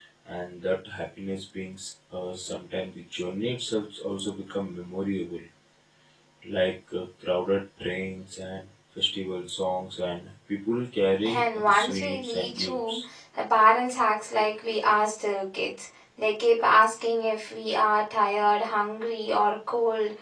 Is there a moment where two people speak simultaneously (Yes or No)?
Yes